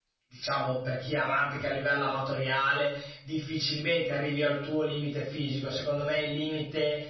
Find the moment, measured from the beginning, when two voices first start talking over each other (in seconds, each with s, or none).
none